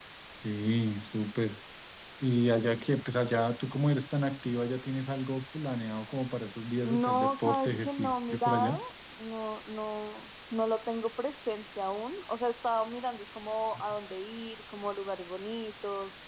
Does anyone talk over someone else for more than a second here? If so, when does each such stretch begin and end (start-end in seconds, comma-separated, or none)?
6.8-8.8